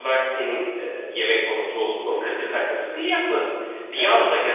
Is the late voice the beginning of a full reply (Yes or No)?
No